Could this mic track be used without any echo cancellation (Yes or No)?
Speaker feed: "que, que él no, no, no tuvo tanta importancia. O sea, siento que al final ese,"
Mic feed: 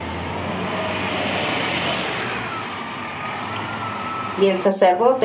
Yes